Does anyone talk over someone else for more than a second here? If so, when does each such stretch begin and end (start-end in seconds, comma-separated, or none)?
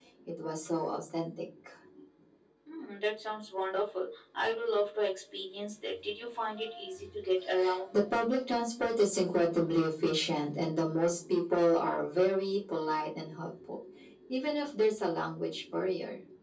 none